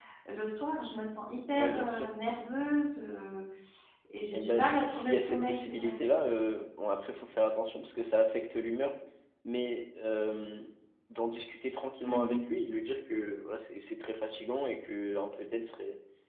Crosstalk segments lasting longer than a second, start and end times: 4.3-6.0

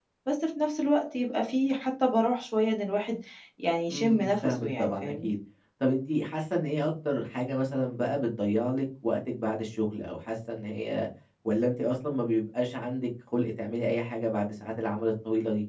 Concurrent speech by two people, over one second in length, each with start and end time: 3.9-5.3

